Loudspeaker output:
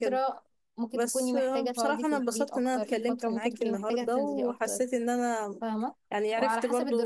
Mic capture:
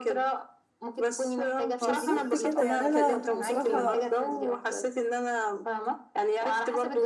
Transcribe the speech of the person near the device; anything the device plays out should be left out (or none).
بالظبط كده يعني انا بصراحة